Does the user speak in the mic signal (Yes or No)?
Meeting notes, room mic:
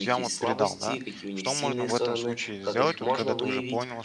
Yes